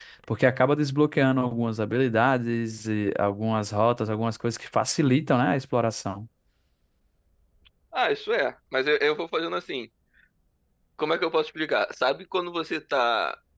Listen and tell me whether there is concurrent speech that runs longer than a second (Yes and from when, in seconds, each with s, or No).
No